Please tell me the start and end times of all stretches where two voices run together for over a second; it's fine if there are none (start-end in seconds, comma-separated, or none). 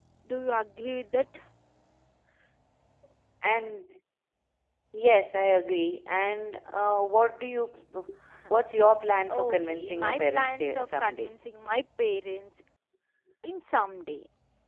9.4-11.3